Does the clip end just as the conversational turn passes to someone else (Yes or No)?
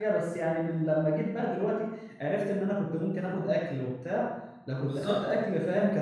No